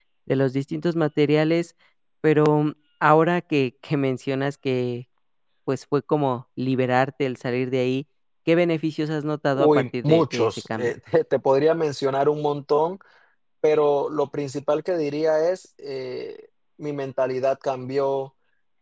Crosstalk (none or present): present